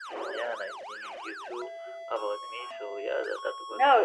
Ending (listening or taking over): taking over